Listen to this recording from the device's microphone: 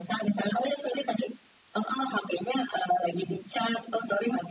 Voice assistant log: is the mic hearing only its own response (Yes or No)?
Yes